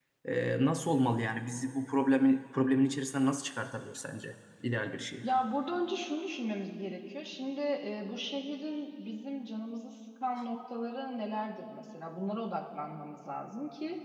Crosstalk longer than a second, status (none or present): none